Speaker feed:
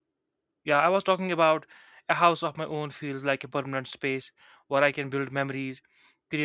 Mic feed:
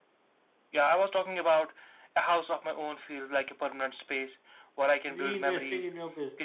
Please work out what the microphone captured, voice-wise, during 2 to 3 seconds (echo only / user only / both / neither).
echo only